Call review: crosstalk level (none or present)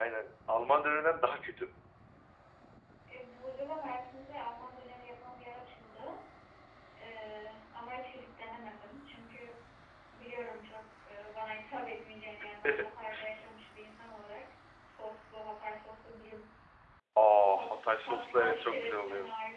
present